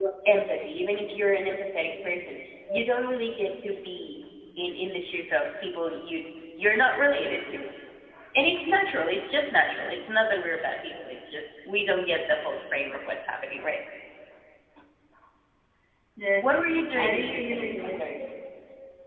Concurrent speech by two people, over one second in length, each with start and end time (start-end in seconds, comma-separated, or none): 16.4-18.0